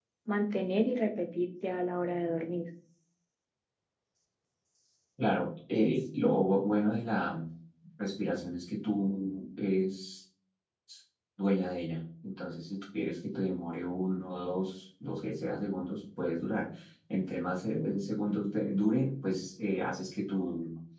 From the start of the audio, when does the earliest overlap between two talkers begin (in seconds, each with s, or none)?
none